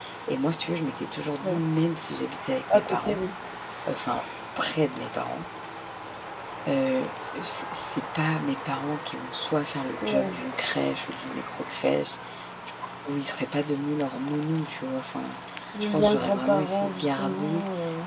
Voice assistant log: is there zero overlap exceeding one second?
No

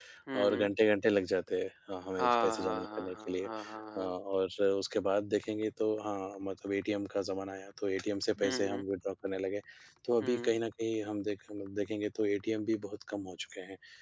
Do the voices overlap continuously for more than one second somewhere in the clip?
Yes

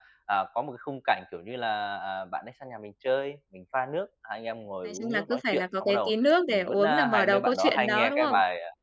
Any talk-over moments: Yes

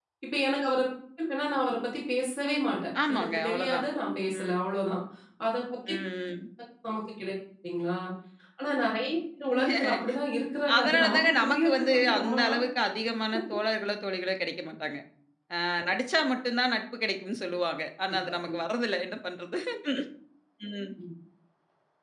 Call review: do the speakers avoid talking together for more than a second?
No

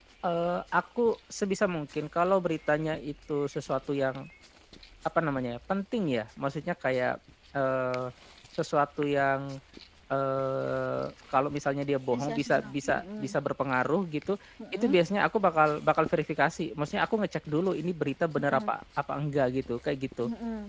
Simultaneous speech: Yes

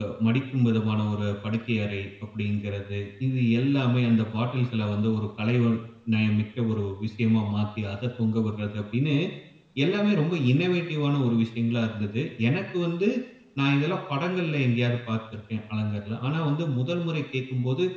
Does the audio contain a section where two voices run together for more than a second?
No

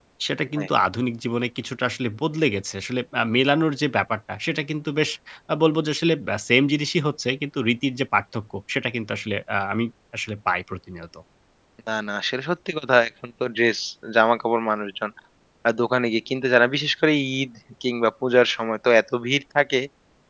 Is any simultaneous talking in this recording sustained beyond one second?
No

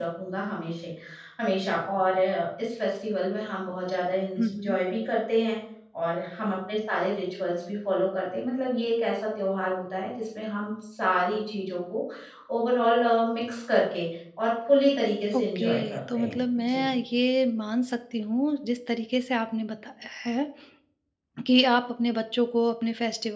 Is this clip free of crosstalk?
No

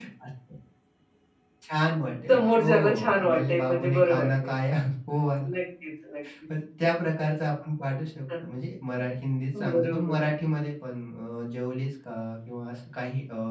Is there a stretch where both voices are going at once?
Yes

